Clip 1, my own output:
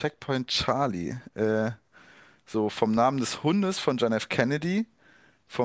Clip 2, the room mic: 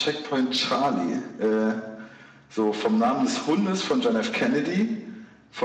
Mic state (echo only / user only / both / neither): echo only